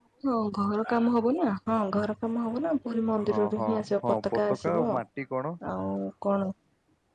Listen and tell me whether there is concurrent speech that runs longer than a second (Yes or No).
Yes